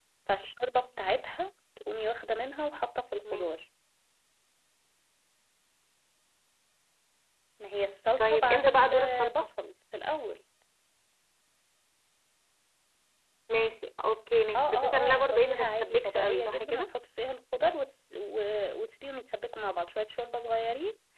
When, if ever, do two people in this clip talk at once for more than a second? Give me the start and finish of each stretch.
8.2-9.5, 14.6-16.9

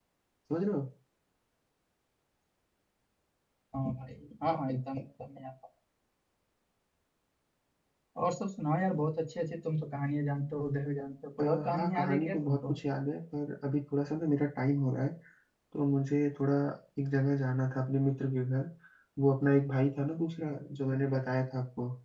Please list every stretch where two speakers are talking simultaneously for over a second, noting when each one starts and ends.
11.4-12.7

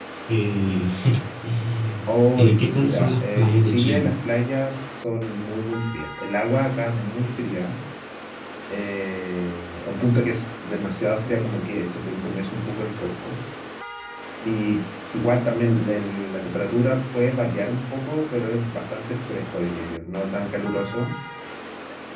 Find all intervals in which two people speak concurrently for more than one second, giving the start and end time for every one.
2.4-4.1

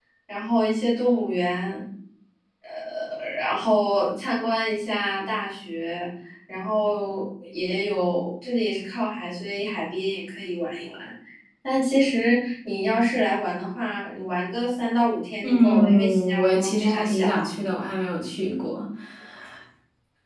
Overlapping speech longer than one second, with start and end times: 15.4-17.5

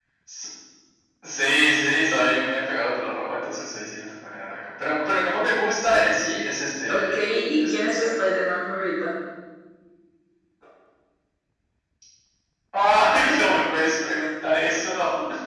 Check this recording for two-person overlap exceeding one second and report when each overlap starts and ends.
6.9-8.3

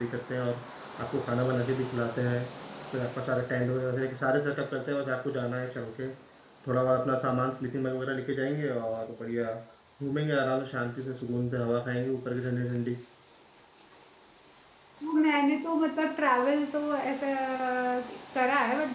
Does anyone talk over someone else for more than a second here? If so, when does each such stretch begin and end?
none

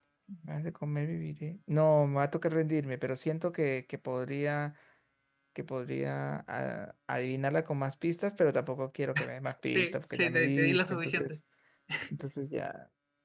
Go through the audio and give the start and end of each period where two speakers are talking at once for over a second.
9.7-11.3

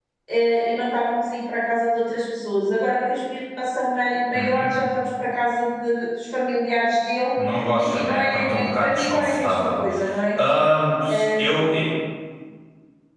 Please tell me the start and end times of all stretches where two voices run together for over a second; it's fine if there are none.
7.8-9.8

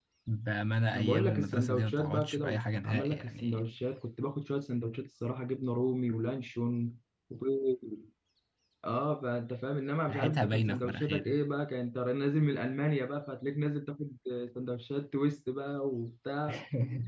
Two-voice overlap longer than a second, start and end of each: 0.9-3.6, 10.1-11.4

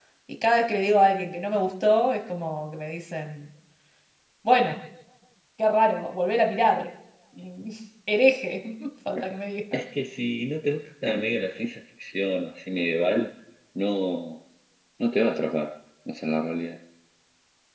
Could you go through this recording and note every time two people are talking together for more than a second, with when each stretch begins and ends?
none

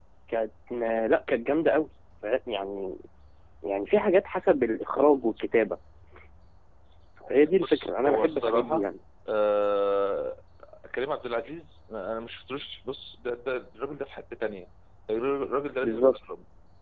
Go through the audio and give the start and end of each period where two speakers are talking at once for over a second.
7.6-8.9

